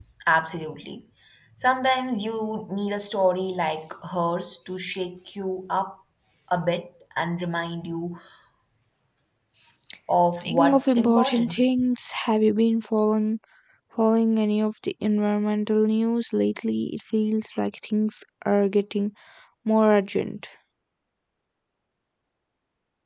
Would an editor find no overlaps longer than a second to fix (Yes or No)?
No